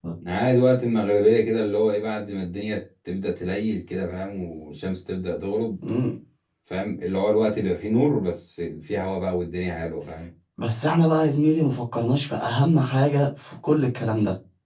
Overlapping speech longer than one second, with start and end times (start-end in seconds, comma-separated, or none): none